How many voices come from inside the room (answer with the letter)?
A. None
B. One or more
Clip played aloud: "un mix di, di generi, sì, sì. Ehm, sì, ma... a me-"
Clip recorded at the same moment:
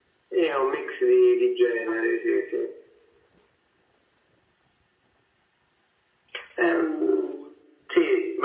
A